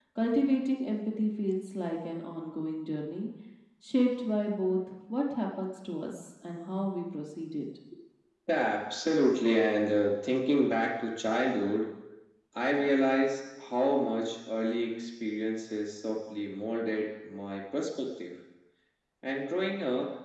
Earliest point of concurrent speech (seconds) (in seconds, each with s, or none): none